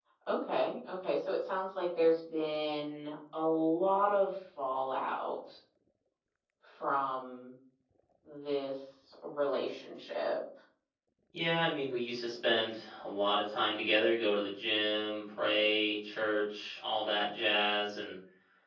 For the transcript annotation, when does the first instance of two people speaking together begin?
none

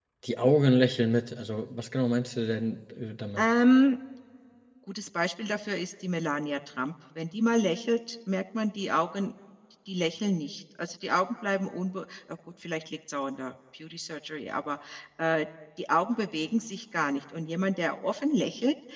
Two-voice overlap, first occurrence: none

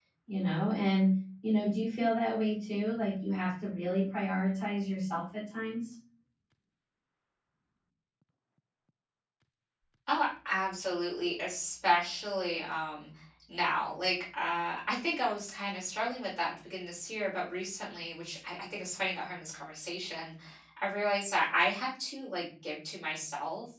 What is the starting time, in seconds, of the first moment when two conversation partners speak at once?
none

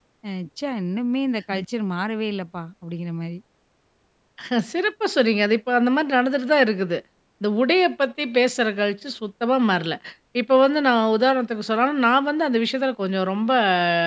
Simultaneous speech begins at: none

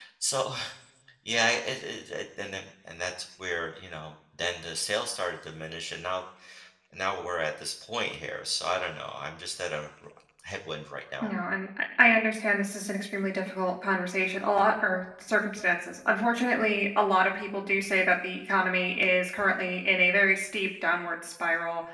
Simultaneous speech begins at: none

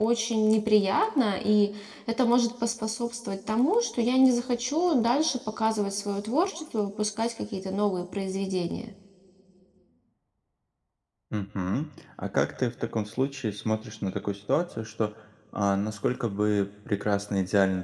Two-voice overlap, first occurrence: none

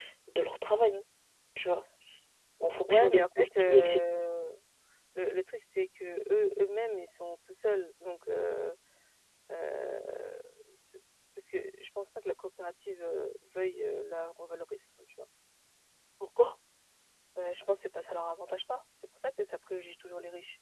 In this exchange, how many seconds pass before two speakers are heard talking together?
2.6 s

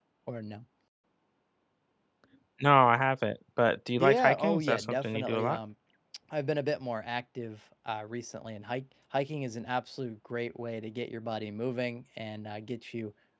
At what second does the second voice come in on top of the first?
4.0 s

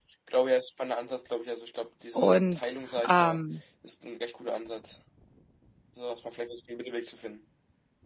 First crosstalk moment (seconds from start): 2.1 s

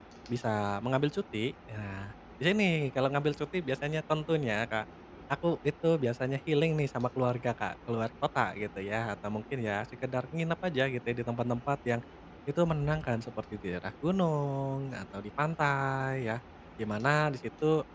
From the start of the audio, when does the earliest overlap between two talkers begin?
none

